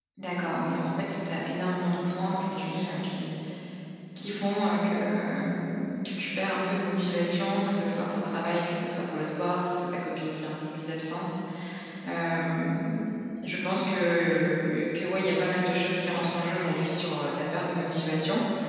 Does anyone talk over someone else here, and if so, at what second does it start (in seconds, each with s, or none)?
none